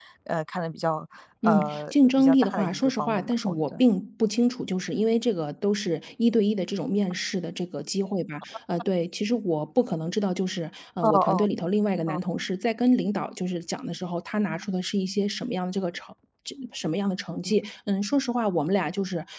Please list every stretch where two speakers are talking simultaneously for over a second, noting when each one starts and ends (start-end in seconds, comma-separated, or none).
1.5-3.8